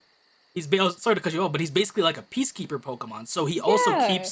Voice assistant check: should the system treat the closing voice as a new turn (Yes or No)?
No